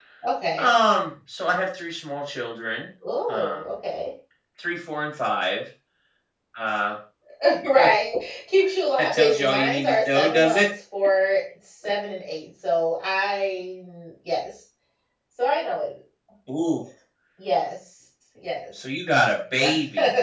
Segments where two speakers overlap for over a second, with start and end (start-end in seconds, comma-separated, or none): 9.1-10.7